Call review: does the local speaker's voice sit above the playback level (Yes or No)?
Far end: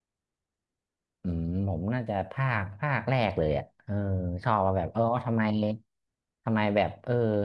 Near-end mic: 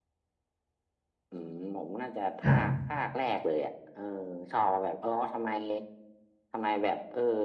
Yes